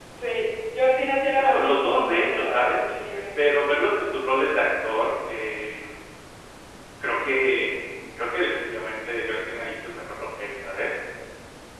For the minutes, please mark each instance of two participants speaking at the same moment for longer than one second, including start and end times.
1.3-2.8

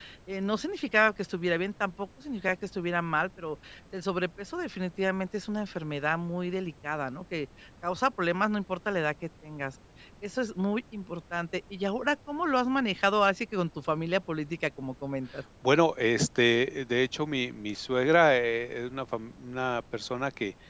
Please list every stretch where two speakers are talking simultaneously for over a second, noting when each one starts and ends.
none

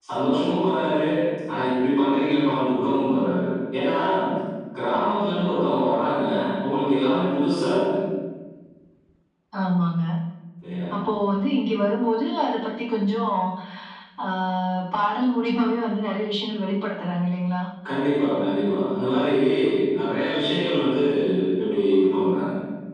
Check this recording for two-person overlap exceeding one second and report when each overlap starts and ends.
none

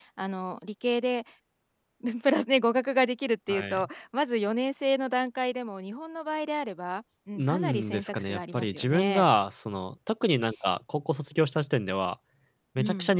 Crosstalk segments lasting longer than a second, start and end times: 7.4-9.2

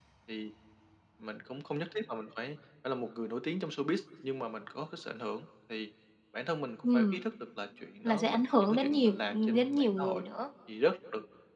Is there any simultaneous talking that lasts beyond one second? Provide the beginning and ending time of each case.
8.0-10.2

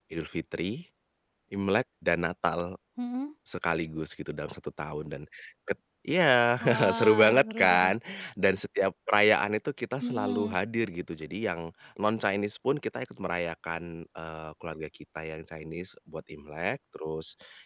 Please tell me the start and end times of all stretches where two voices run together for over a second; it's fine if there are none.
6.6-7.9

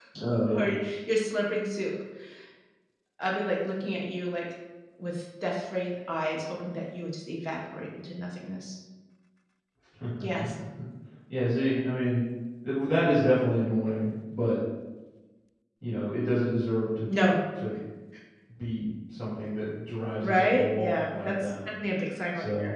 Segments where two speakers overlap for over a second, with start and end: 20.2-21.5

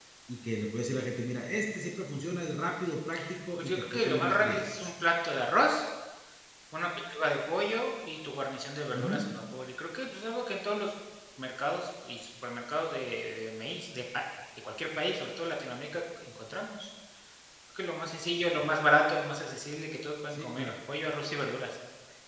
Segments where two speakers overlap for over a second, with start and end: 3.6-4.9

